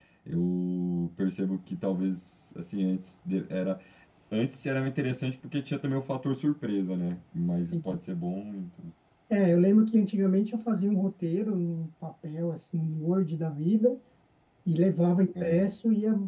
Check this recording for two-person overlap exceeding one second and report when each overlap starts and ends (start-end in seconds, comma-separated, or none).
none